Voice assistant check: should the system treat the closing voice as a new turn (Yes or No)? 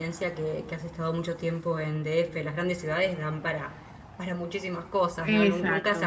Yes